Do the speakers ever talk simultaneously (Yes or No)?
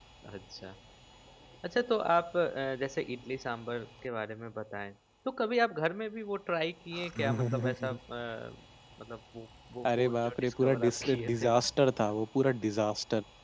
Yes